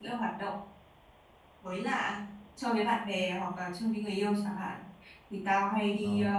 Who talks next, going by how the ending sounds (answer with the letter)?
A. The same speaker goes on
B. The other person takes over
A